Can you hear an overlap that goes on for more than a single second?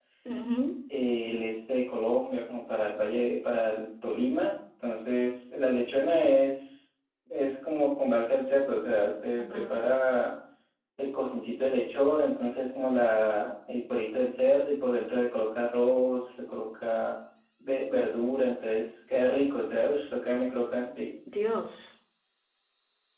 No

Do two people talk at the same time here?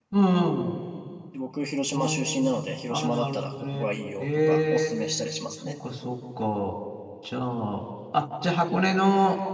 Yes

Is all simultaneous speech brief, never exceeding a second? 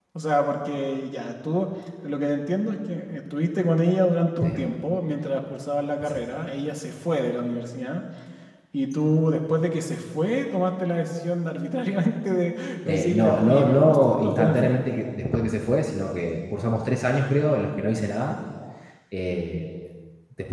No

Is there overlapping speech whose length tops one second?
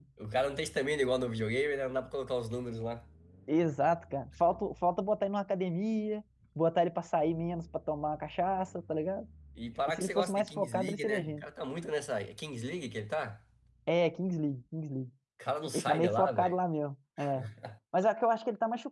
Yes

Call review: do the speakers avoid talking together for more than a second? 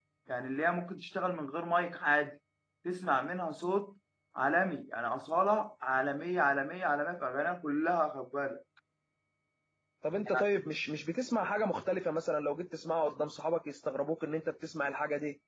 Yes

